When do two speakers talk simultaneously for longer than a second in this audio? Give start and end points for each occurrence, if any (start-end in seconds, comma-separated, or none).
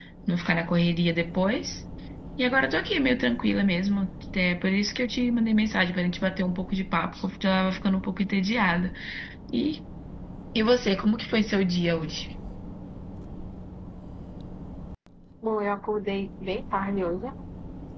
none